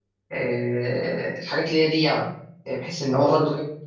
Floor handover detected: No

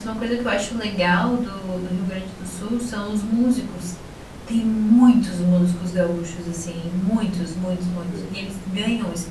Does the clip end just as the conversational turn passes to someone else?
No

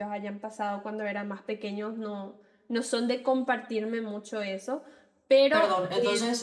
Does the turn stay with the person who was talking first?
No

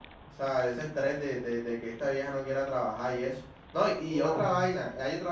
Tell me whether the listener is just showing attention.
Yes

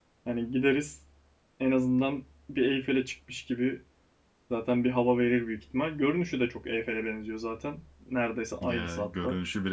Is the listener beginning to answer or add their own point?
Yes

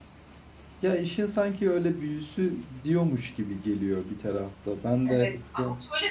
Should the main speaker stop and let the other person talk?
Yes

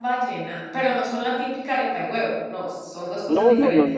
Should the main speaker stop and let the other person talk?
Yes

